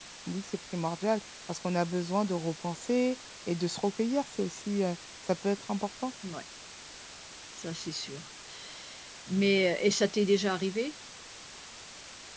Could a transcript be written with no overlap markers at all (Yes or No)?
Yes